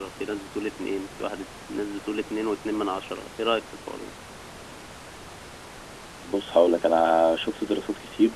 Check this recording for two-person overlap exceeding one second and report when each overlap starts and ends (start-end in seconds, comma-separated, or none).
none